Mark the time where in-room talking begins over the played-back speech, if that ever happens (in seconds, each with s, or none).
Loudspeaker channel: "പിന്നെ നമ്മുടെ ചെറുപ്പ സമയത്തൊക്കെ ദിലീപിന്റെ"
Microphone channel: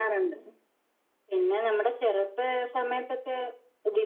none